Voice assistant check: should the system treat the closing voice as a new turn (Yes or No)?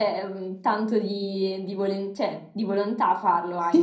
Yes